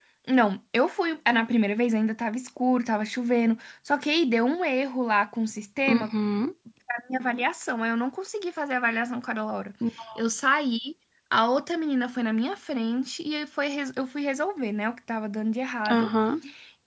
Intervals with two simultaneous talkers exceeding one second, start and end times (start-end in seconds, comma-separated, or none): none